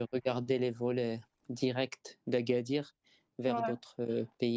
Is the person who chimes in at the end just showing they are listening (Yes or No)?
Yes